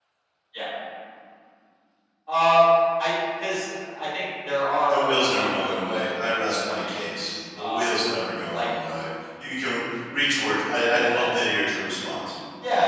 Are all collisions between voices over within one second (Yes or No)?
No